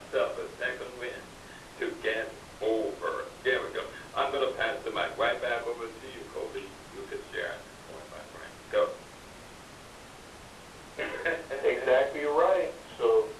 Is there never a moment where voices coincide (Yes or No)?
Yes